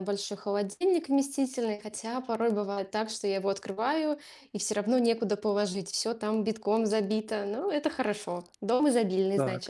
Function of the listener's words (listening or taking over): taking over